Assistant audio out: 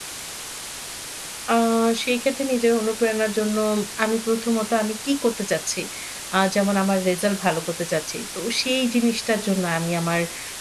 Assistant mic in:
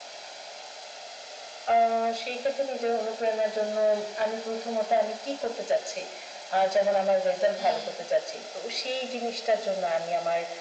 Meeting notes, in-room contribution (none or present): present